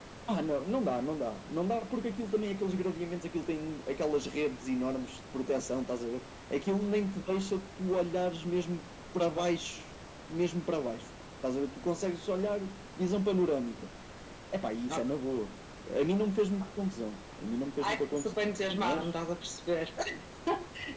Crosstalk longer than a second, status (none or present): present